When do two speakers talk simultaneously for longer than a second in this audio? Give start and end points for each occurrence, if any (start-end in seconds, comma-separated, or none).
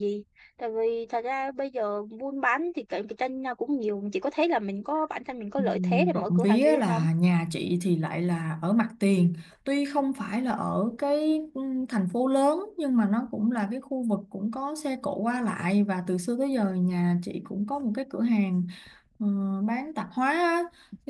5.6-7.0